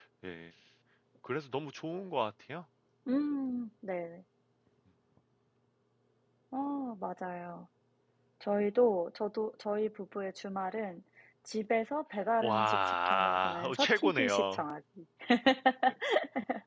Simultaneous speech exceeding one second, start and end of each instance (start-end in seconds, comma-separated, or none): 12.4-14.6